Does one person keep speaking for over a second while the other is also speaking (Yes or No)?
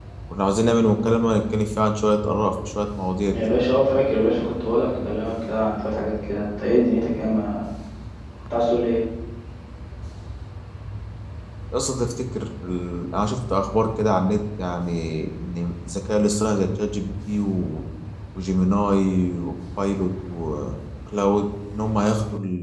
No